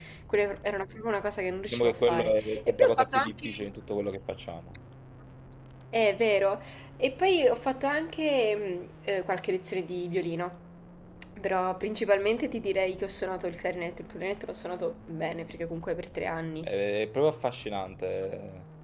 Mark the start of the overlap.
1.7 s

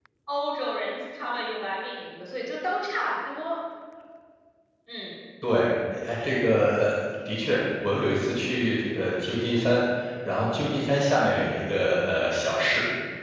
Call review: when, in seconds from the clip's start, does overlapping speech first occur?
none

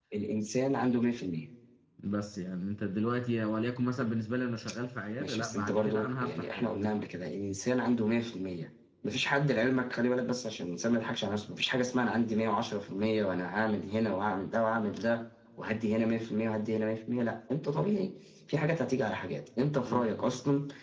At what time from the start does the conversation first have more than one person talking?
5.2 s

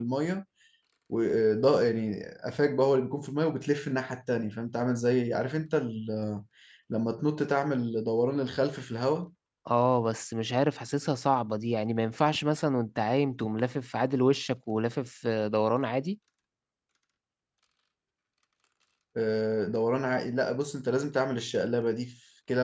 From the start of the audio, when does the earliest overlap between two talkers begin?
none

